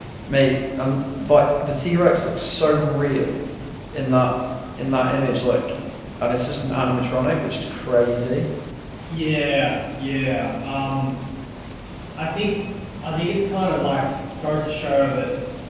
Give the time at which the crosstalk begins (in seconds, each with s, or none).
none